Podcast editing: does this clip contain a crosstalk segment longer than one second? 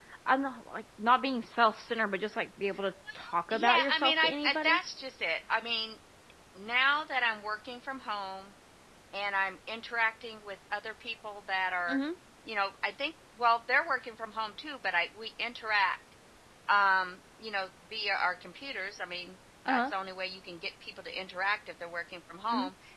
Yes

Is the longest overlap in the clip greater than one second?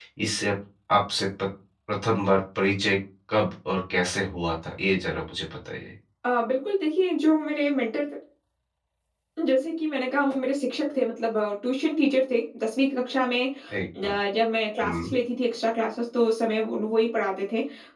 No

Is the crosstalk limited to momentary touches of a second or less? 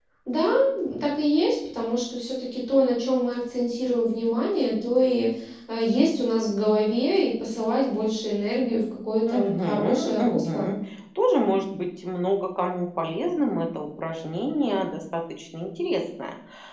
No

